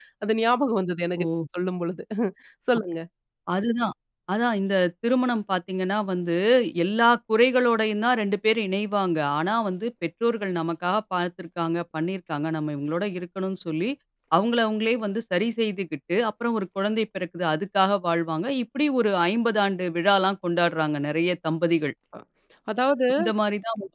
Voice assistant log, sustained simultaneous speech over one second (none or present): none